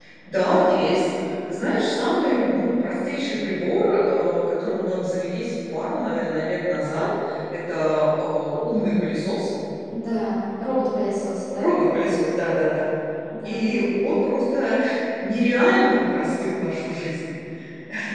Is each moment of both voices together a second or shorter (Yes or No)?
Yes